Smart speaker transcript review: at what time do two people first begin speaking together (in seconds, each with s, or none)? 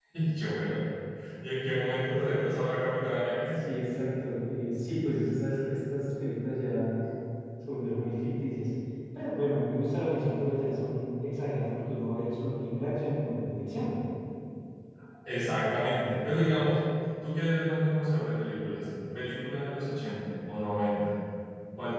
none